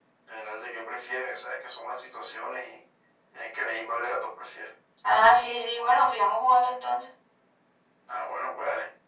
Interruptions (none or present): none